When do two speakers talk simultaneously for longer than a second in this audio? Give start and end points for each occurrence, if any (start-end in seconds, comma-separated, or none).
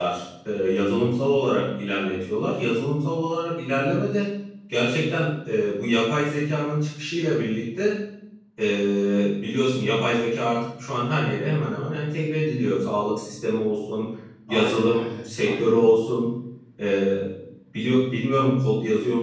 14.5-16.0